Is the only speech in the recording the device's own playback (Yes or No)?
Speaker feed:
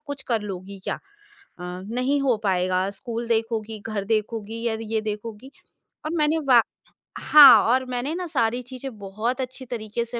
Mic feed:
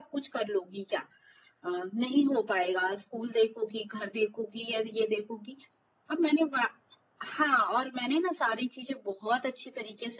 Yes